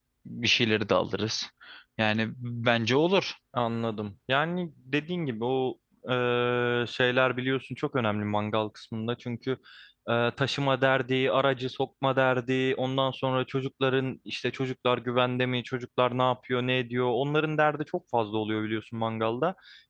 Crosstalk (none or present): none